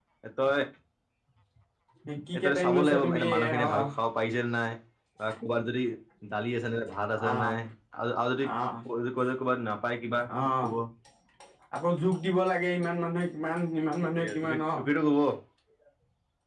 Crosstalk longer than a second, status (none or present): present